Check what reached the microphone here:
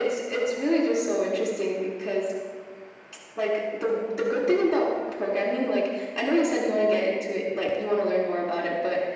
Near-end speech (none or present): none